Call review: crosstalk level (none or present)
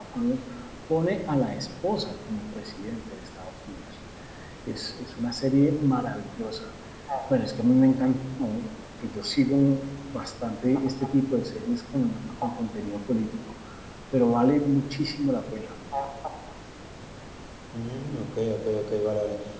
none